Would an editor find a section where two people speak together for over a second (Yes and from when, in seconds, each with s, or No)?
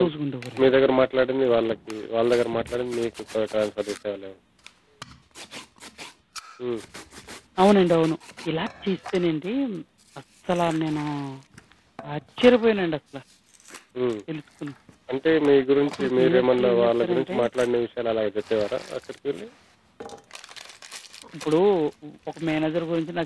Yes, from 15.9 s